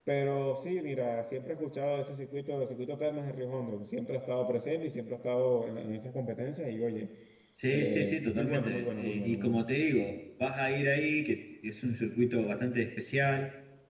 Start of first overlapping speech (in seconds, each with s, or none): 7.7 s